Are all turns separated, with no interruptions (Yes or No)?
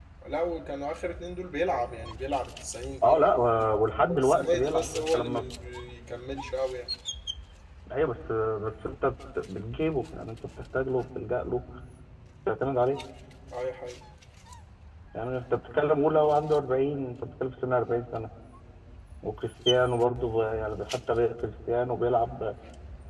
No